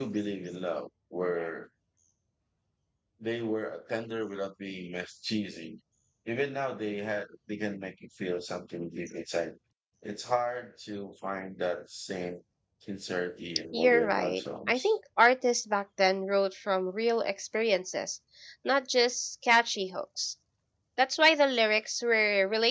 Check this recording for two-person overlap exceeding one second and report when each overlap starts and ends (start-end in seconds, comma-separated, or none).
13.7-14.9